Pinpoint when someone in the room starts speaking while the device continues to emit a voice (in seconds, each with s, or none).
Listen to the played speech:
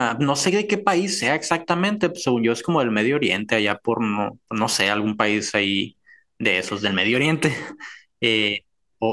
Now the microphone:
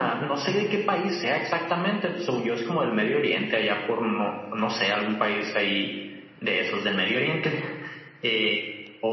none